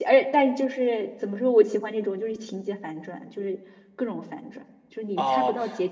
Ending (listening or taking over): taking over